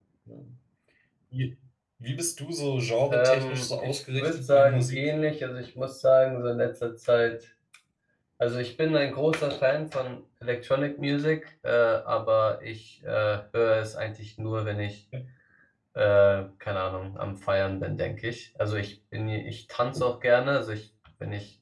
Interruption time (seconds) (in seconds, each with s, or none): 3.1 s